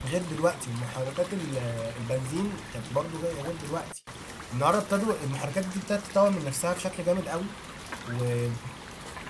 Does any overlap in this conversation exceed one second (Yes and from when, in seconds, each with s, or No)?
No